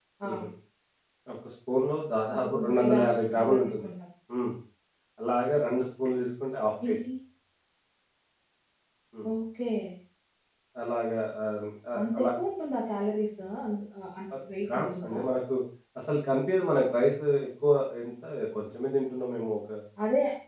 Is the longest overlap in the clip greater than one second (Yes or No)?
Yes